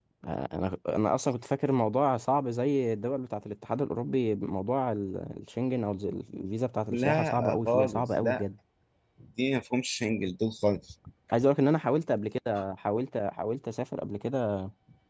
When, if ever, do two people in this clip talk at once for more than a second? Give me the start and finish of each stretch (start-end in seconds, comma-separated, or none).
6.9-8.4